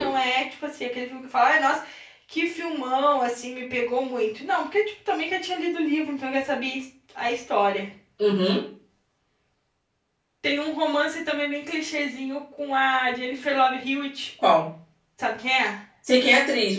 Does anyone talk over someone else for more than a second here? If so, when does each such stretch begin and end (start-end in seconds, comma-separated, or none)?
none